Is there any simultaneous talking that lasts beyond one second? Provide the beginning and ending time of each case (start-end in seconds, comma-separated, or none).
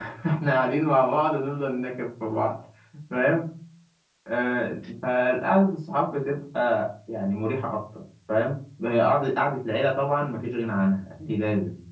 none